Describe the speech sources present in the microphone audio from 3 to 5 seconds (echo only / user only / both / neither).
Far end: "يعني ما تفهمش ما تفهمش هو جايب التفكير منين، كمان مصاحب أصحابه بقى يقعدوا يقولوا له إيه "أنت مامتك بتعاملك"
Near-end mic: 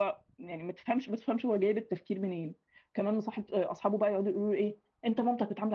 echo only